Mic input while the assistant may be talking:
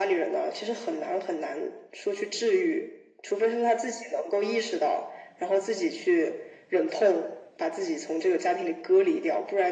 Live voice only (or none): none